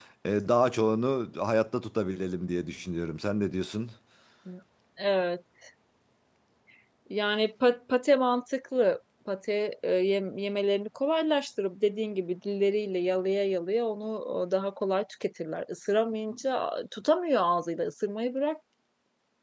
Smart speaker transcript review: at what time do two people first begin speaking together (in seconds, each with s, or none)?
none